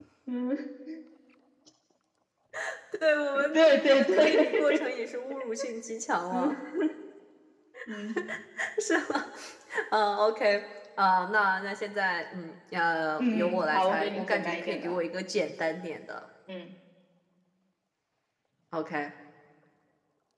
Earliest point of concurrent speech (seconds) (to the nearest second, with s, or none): 4 s